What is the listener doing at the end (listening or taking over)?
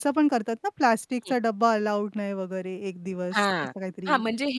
taking over